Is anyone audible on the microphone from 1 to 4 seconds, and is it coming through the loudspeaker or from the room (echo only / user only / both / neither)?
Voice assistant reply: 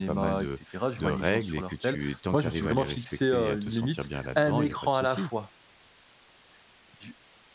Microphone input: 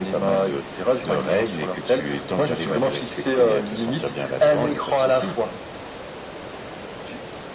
echo only